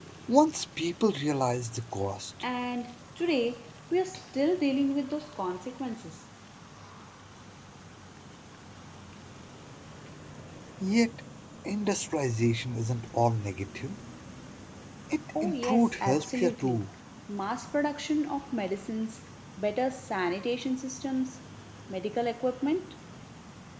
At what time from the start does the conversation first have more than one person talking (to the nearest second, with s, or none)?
15 s